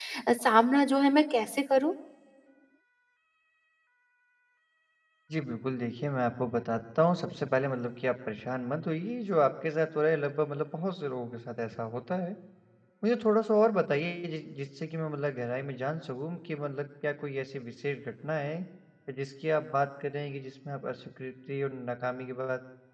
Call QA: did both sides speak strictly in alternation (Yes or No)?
Yes